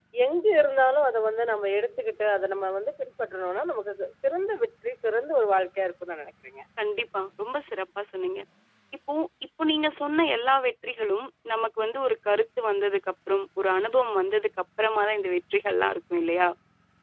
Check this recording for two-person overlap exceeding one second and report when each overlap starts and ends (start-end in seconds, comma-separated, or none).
none